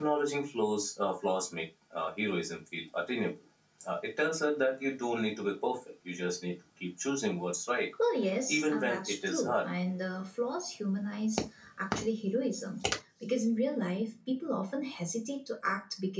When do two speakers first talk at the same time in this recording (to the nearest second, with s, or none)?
8 s